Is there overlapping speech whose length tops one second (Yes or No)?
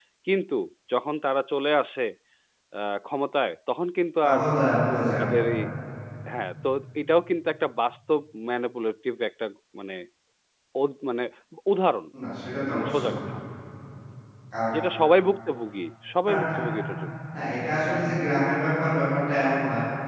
No